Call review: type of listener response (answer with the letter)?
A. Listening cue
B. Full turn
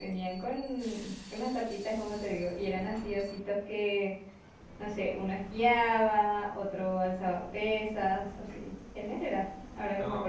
A